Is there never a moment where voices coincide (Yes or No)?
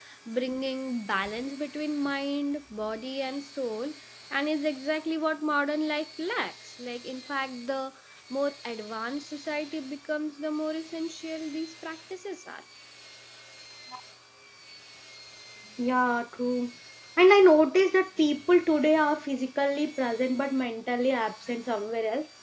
Yes